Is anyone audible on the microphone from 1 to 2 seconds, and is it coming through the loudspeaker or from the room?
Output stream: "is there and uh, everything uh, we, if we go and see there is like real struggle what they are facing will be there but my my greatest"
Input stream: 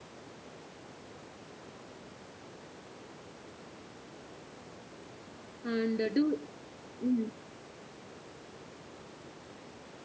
neither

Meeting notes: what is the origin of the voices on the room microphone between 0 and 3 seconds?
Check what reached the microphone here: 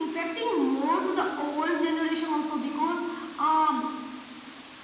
echo only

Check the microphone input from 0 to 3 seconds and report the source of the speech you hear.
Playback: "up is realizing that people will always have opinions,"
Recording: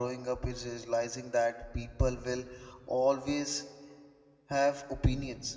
echo only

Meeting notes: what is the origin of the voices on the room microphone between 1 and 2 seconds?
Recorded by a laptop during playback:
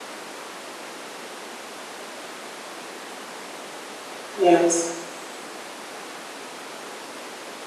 neither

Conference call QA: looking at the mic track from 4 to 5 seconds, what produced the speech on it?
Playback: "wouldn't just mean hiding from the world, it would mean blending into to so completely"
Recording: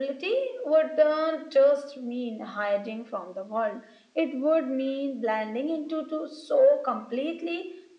echo only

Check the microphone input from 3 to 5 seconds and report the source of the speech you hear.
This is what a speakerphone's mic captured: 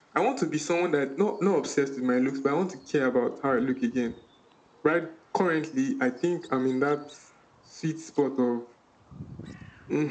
echo only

